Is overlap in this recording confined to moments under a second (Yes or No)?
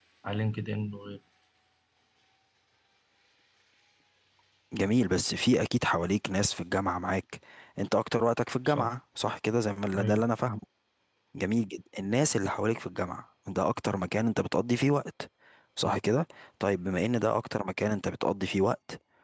Yes